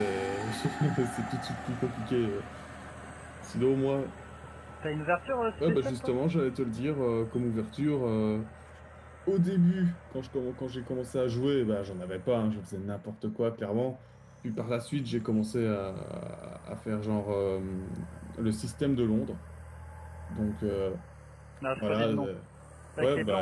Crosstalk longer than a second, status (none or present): none